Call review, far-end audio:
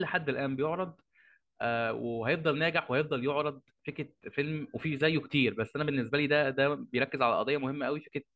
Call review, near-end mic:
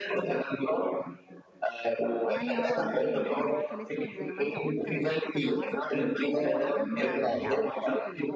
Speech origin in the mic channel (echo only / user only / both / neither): both